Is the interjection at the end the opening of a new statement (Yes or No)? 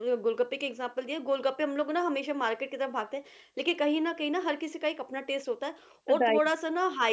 No